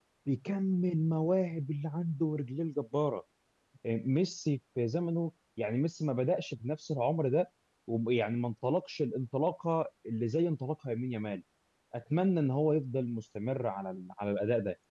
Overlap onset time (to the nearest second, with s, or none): none